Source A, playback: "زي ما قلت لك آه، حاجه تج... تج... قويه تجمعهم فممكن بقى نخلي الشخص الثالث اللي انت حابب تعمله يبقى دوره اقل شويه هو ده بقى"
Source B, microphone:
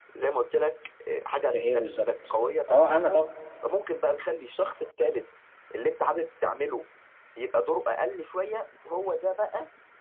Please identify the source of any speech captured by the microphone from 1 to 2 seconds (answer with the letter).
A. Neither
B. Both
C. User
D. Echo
B